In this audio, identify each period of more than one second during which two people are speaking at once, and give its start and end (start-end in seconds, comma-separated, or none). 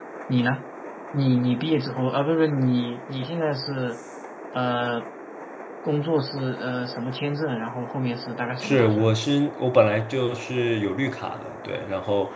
none